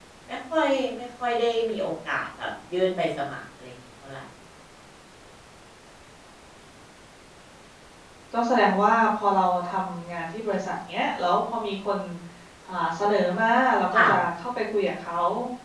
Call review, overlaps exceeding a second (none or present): none